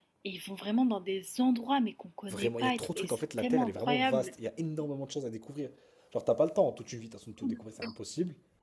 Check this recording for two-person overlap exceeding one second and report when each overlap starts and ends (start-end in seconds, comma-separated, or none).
2.3-4.3